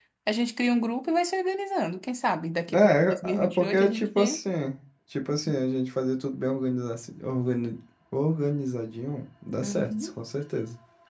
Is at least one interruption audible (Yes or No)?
Yes